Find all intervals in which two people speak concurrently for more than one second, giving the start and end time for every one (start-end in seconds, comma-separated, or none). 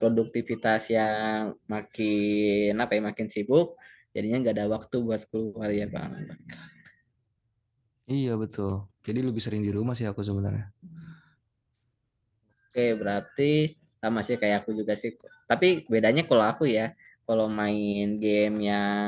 none